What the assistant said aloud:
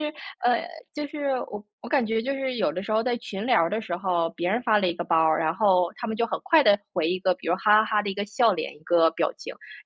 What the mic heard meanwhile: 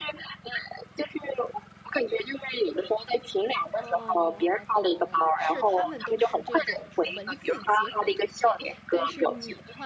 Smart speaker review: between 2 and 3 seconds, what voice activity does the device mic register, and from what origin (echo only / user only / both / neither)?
echo only